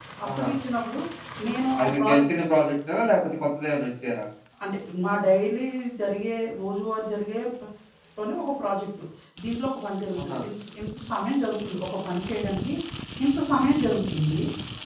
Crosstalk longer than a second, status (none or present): none